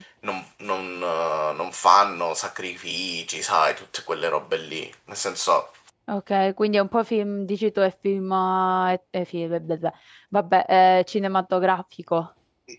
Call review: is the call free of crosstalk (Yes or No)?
Yes